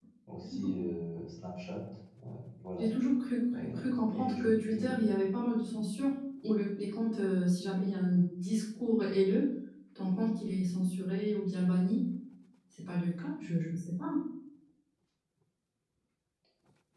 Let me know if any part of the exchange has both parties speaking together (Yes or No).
Yes